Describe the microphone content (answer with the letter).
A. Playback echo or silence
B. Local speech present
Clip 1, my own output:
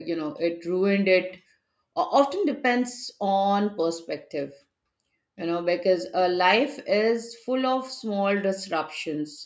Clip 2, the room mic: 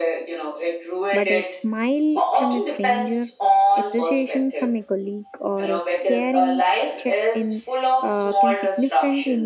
B